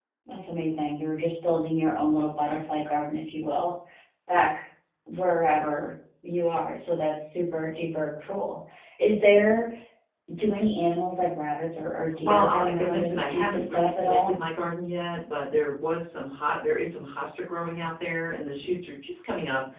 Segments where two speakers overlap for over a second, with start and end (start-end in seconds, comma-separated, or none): 12.2-14.4